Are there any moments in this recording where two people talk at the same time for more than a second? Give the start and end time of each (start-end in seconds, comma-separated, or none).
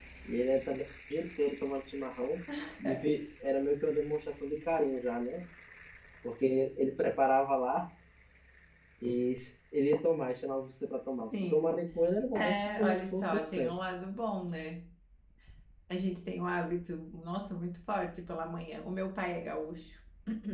12.3-13.7